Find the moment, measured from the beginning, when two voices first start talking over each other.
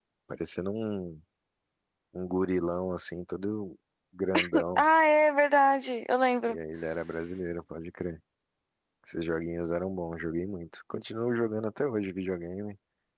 none

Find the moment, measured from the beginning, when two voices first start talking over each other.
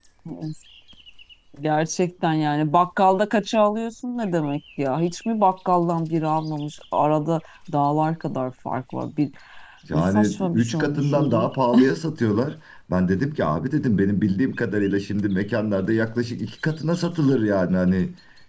9.9 s

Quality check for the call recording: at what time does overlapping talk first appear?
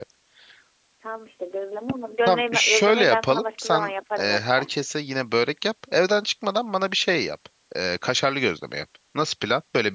2.3 s

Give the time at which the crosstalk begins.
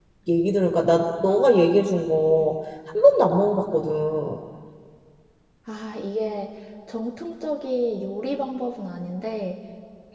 none

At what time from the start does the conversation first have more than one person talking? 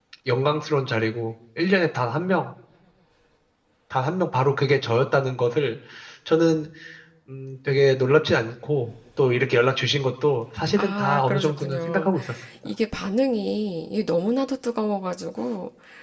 10.8 s

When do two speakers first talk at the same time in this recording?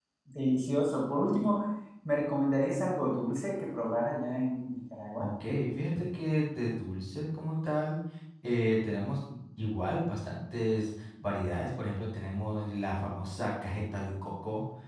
none

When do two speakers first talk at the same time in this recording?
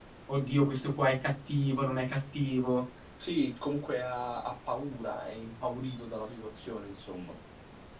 none

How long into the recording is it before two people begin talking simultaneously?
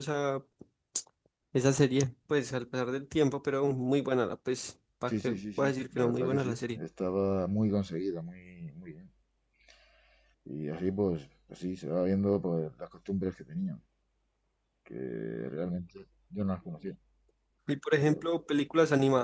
5.1 s

